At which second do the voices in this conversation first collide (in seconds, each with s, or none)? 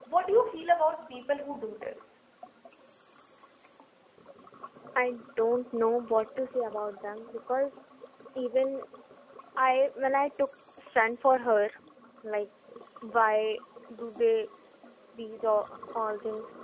none